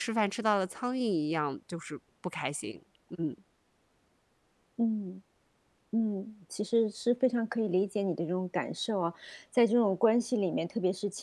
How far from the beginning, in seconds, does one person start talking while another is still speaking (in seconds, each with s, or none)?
none